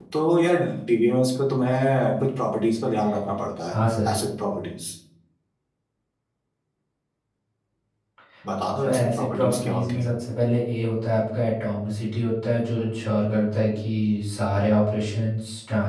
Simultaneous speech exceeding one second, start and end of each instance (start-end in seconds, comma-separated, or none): 8.8-10.1